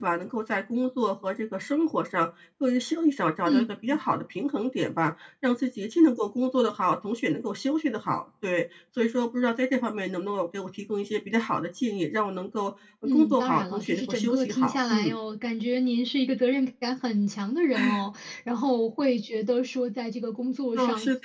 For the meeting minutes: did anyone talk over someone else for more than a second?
Yes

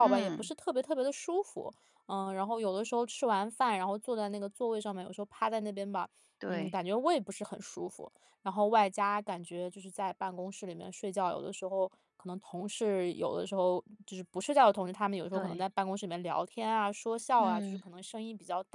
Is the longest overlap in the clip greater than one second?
No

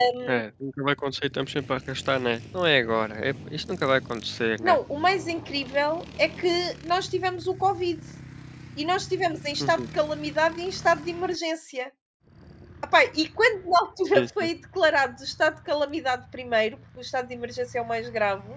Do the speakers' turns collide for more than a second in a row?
No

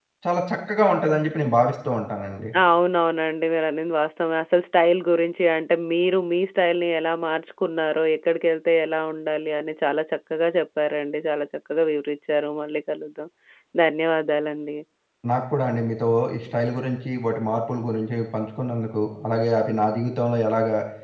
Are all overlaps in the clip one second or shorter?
Yes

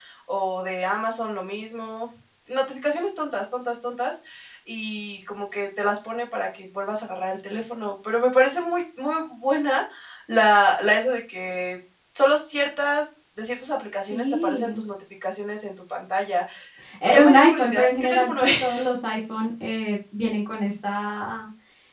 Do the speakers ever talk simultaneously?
Yes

